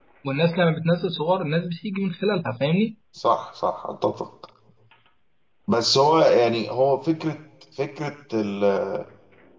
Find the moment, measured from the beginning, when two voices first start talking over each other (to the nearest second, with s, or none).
none